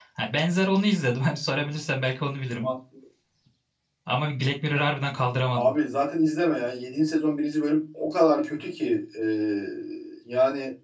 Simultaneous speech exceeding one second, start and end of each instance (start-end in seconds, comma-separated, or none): none